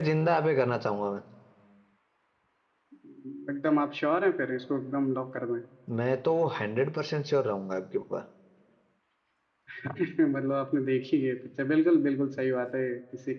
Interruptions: none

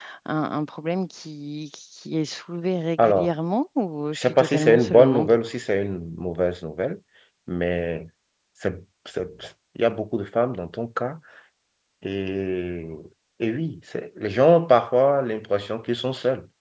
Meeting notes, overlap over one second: present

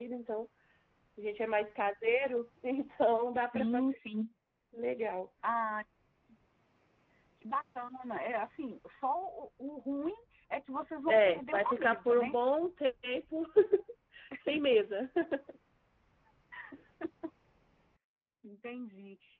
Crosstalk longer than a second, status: present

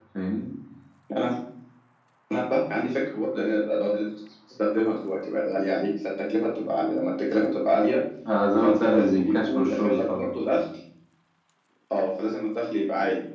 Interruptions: present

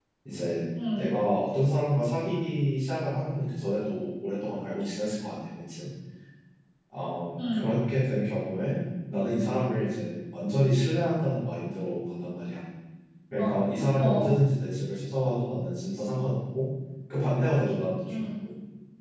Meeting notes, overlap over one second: none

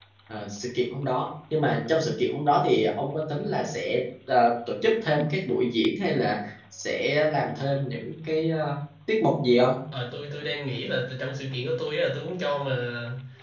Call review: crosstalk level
none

